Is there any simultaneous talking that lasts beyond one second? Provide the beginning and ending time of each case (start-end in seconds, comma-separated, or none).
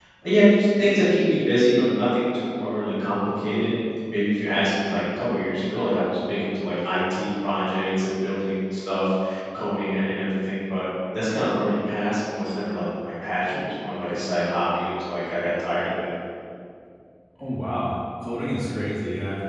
none